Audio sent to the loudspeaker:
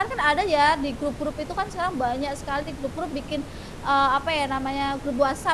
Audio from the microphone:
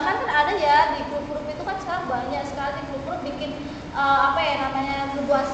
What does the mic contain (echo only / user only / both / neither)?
echo only